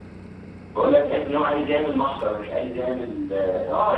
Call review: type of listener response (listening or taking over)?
taking over